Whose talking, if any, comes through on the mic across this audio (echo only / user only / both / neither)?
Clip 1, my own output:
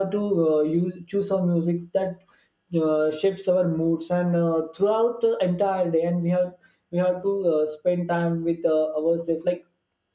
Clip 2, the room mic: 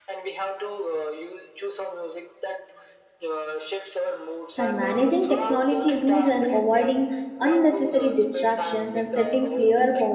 both